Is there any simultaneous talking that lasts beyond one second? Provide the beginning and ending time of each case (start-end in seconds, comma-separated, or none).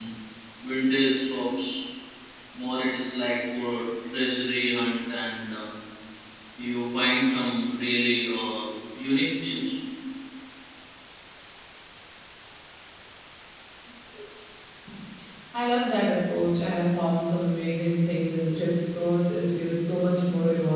none